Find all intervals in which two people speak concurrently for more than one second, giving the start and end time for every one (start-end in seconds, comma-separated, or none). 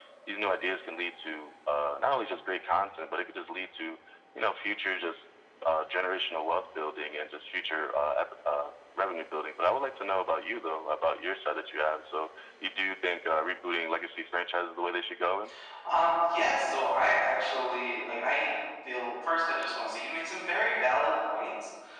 none